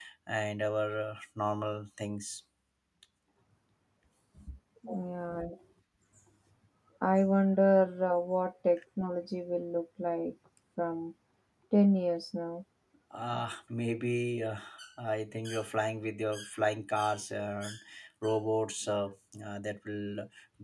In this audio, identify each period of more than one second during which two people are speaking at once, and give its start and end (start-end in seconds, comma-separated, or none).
none